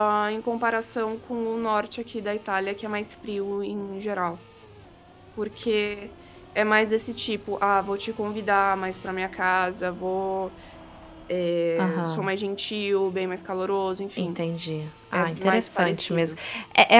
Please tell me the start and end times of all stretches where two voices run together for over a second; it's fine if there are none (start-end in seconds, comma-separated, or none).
15.1-16.4